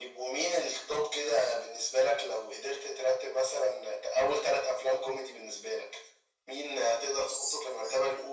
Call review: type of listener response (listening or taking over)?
listening